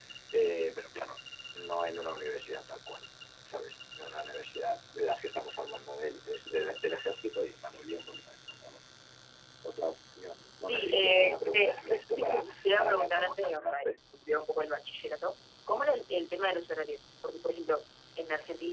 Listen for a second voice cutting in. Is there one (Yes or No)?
Yes